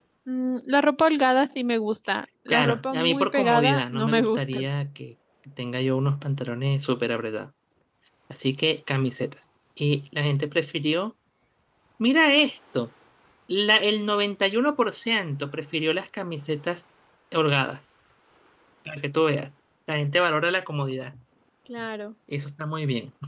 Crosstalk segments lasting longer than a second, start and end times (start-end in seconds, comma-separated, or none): 2.5-4.6